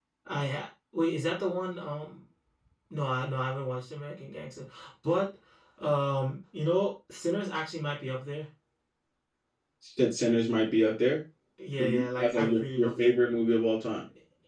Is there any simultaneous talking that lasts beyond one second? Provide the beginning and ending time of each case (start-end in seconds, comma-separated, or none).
11.8-13.1